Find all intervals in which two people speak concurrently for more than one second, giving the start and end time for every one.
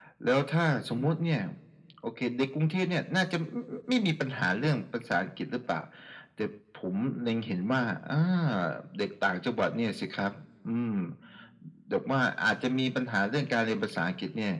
none

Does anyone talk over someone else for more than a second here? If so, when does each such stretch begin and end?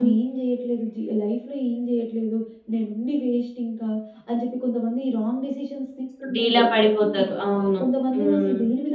none

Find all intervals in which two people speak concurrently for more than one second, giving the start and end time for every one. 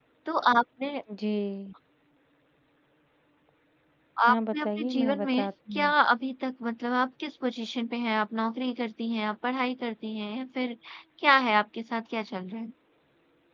4.3-5.9

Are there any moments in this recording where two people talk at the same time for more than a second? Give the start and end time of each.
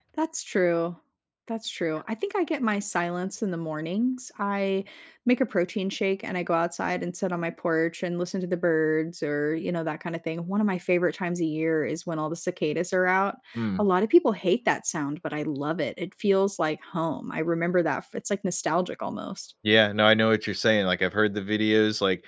none

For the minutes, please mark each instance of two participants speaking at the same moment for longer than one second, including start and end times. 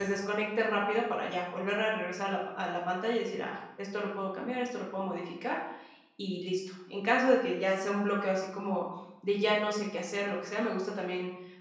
none

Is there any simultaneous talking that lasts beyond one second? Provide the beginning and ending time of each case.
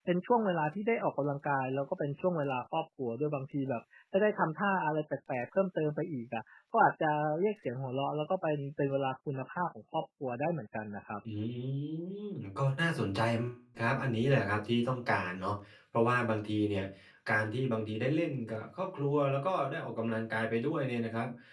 none

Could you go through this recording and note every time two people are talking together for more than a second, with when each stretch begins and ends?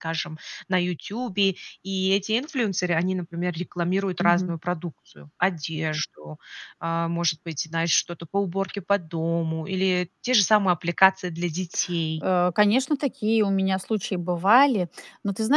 none

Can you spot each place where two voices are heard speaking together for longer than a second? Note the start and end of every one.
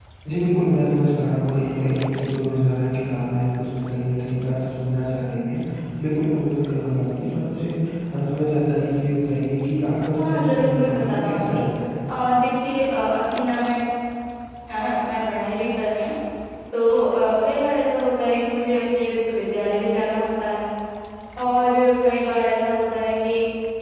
10.2-11.6

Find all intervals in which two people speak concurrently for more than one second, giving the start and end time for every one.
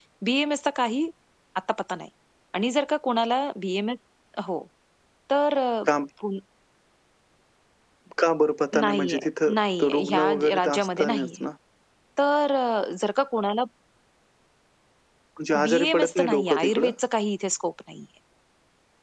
8.8-11.4, 15.7-16.9

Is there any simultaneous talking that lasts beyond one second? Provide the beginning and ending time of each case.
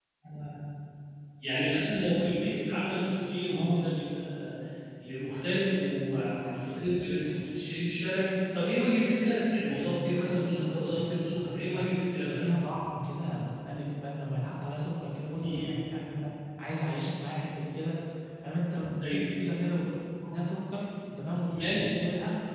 9.9-11.8

